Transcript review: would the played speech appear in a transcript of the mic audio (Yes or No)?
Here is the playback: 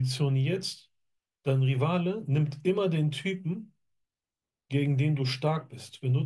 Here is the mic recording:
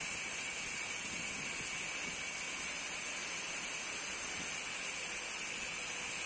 No